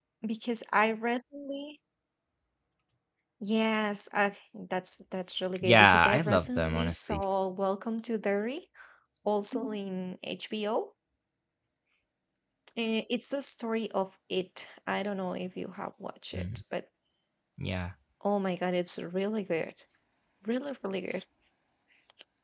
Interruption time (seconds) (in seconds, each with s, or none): 5.6 s